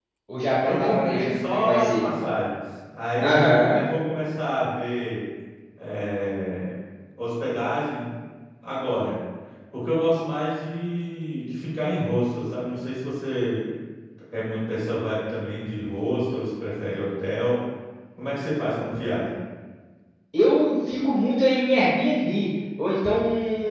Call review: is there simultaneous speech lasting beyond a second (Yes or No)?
Yes